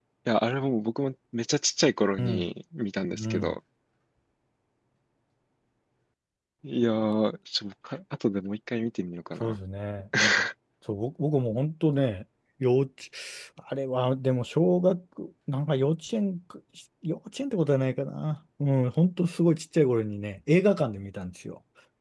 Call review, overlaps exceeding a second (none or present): none